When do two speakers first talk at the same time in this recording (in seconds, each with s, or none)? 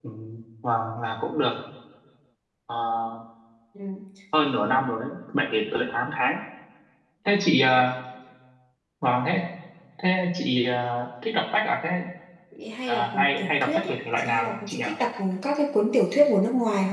12.9 s